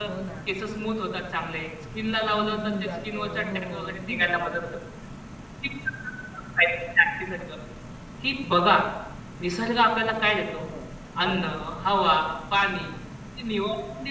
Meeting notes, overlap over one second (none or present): present